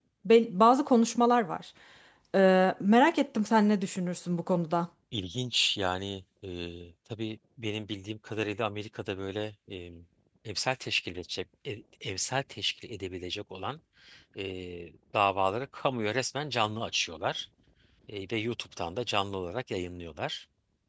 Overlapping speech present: No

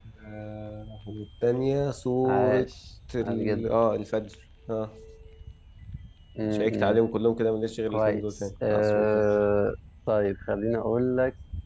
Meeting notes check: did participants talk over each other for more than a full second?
Yes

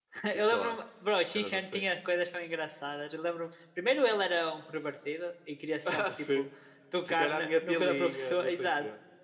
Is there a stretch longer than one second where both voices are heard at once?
Yes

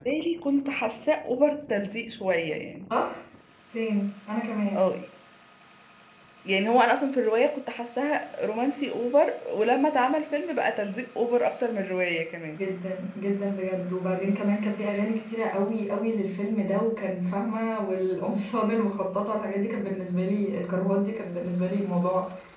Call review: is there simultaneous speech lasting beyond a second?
No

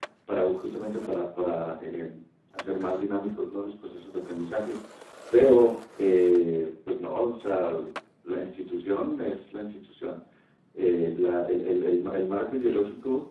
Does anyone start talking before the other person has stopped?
No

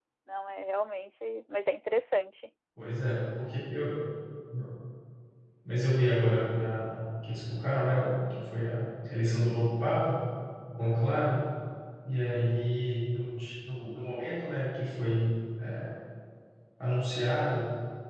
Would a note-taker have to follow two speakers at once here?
No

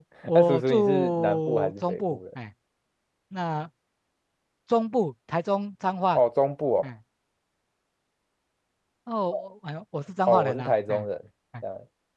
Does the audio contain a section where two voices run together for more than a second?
Yes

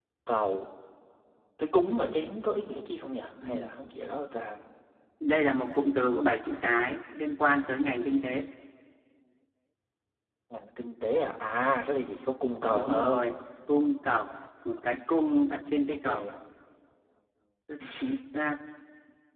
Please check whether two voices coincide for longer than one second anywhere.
No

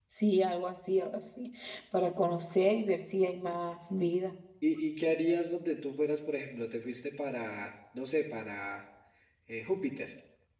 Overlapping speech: No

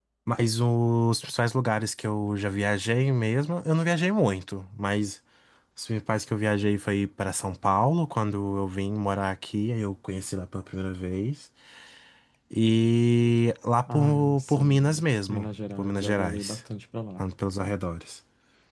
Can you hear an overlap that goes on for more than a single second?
Yes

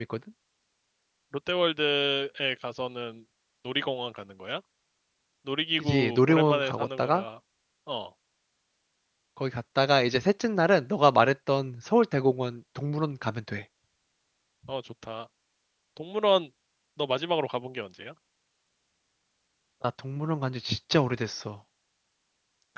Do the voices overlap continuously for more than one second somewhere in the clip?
Yes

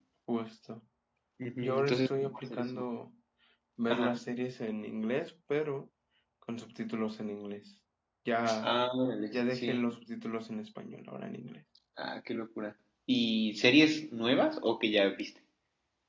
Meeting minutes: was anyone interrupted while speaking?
Yes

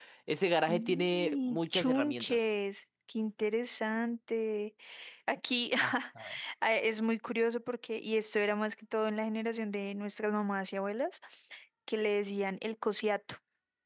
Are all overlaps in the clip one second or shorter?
No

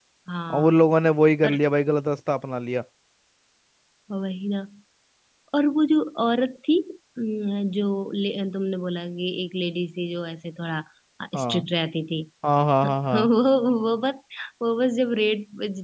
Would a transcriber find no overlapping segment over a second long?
Yes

